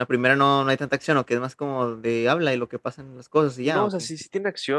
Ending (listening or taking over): taking over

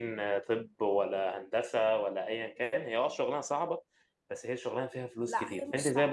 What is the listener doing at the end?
taking over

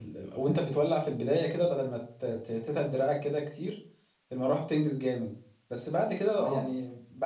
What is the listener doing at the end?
listening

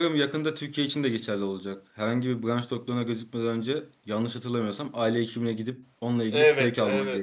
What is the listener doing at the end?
taking over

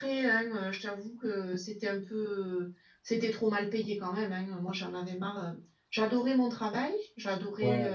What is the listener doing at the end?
listening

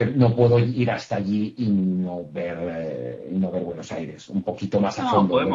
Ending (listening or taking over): taking over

